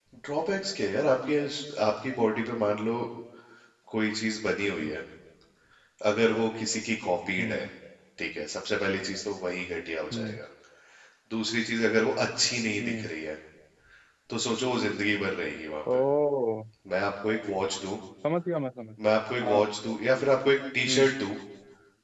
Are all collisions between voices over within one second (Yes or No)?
Yes